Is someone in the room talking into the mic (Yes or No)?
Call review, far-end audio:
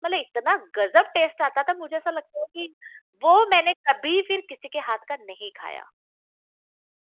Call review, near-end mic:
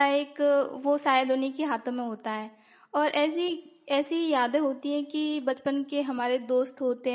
Yes